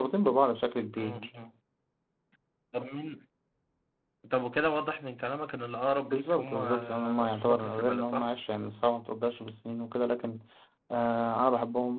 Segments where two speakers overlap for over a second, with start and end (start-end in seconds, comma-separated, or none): 6.1-8.3